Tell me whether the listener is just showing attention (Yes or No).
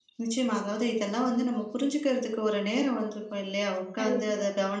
Yes